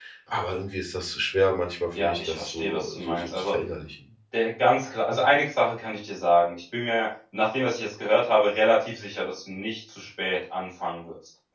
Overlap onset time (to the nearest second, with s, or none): 2 s